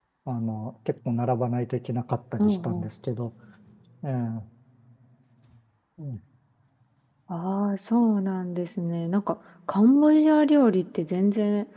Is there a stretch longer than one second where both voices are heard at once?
No

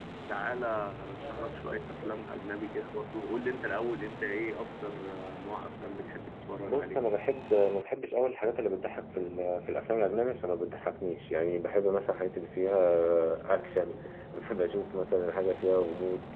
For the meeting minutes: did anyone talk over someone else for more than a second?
No

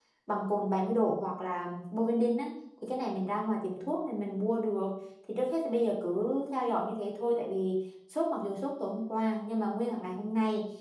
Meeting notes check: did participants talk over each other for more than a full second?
No

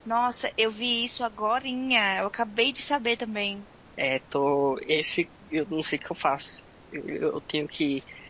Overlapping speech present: No

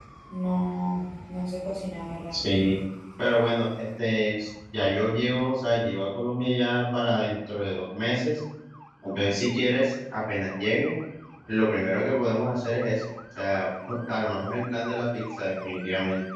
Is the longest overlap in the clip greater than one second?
No

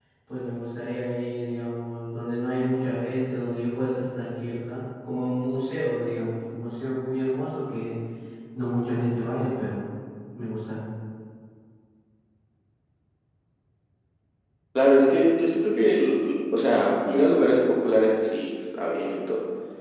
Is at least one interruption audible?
No

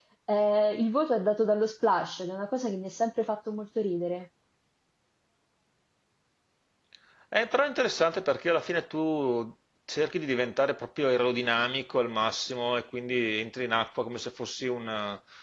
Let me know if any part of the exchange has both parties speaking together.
No

